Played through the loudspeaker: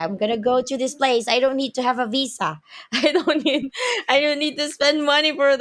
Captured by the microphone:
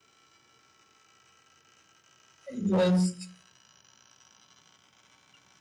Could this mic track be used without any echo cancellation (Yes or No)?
Yes